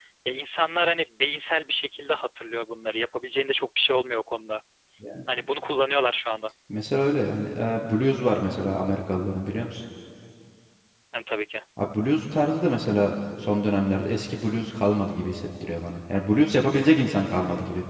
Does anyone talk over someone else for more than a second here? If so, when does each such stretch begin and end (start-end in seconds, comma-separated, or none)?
none